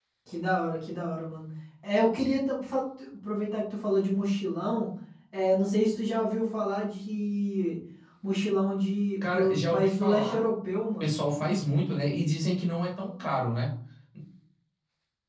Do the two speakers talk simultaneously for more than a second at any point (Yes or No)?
Yes